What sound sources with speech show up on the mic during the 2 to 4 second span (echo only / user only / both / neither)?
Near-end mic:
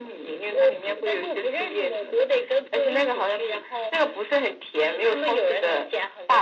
echo only